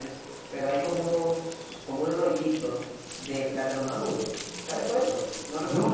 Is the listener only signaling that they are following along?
No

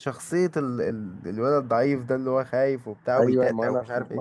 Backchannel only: No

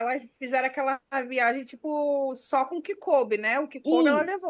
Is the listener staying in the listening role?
No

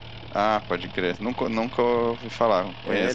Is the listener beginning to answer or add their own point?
Yes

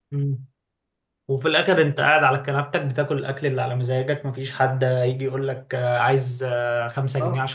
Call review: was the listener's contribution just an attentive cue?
No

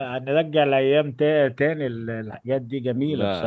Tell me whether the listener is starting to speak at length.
Yes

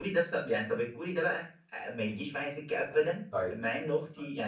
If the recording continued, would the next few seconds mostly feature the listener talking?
No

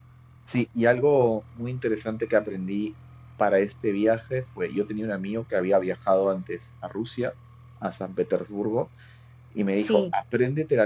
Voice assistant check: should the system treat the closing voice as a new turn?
No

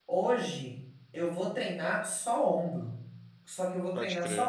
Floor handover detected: No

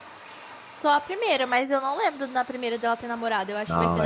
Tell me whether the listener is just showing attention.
No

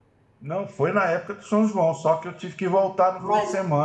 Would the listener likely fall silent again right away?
Yes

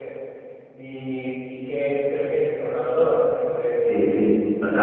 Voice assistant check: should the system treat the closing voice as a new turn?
Yes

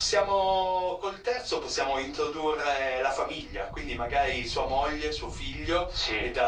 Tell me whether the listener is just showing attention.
Yes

